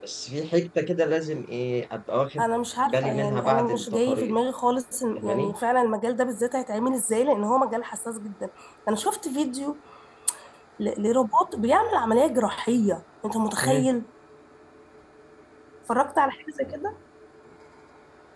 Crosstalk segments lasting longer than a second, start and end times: 2.8-4.3

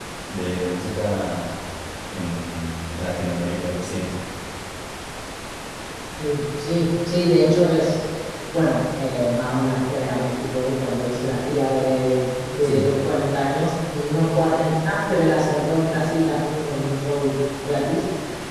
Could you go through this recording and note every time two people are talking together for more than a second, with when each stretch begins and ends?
none

